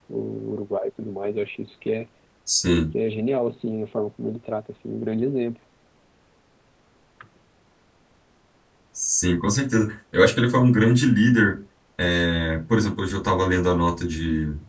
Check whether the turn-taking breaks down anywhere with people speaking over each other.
No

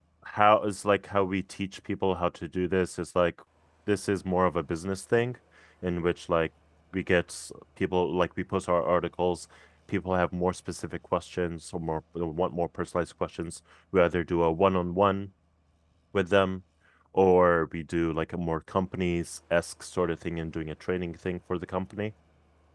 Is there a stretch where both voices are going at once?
No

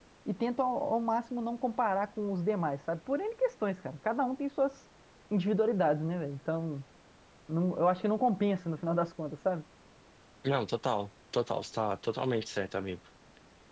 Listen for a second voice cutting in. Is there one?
No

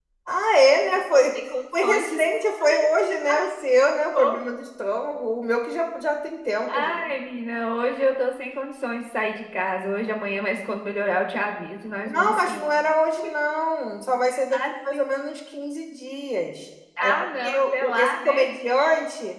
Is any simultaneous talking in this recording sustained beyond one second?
Yes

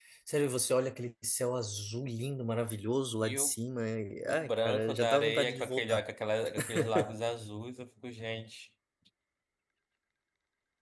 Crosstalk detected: Yes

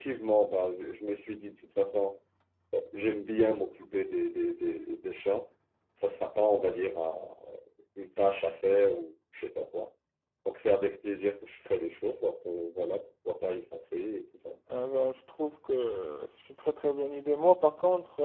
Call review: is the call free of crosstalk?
Yes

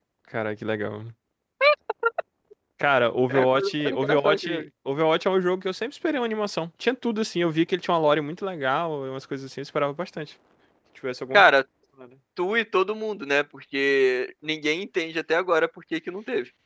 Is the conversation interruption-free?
No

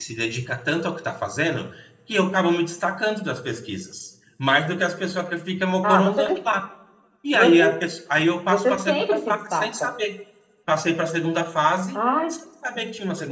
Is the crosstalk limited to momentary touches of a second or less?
No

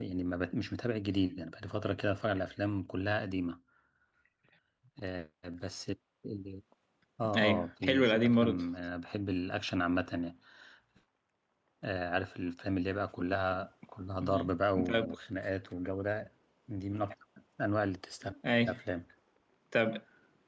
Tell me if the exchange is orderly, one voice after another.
No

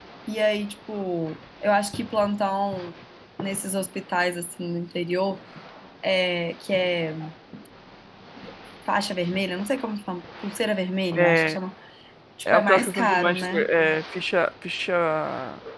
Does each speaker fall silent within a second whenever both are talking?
No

